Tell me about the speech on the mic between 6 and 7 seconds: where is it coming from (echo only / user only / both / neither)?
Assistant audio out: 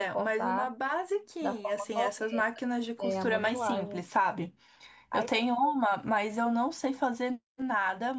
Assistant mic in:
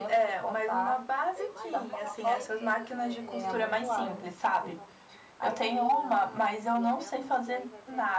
both